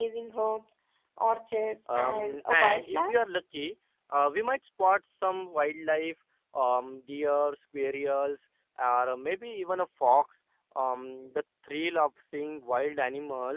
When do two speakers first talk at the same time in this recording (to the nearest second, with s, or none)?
2 s